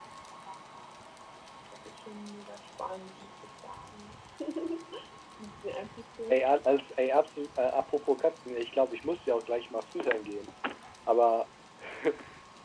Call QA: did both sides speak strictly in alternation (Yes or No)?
Yes